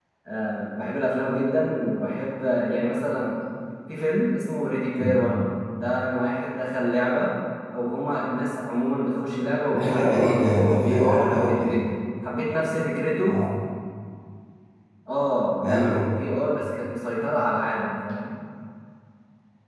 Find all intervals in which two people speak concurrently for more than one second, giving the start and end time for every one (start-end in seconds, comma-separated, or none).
9.7-11.8